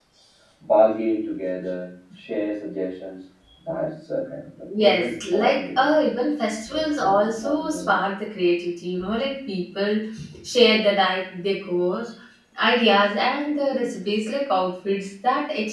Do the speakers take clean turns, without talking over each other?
No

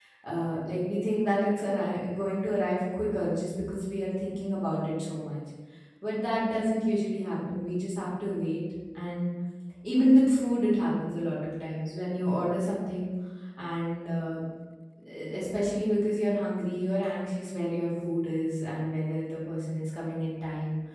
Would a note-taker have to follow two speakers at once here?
No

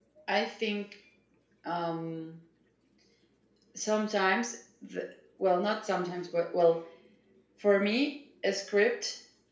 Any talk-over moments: No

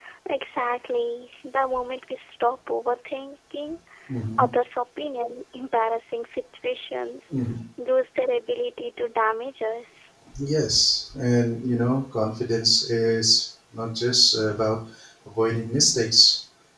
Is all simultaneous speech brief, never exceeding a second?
Yes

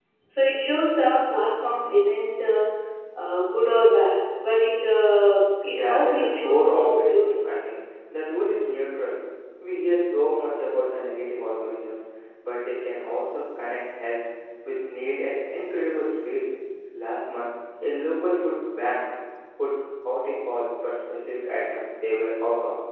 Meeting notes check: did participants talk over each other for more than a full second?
Yes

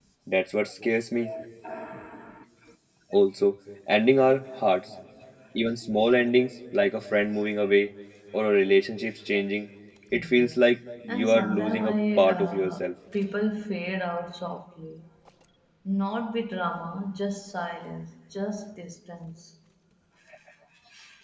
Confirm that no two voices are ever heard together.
No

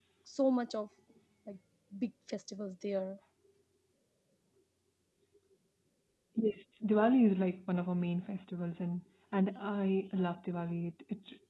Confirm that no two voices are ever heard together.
Yes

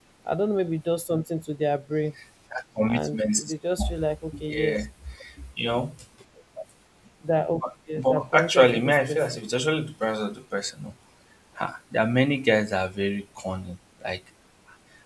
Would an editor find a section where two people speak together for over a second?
Yes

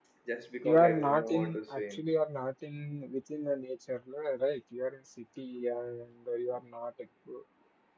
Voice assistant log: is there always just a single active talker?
No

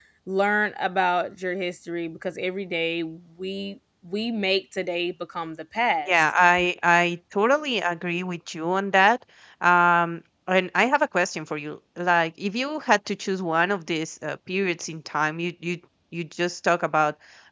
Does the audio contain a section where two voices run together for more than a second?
No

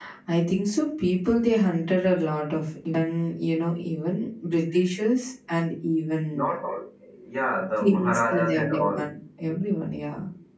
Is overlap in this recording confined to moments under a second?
No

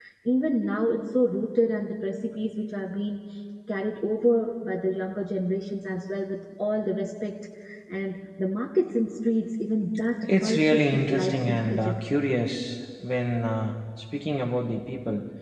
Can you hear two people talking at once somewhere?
Yes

